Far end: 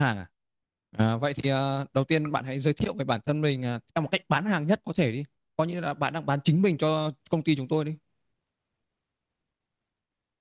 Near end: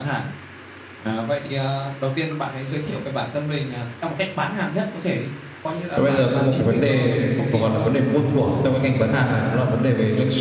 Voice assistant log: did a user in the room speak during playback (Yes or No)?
Yes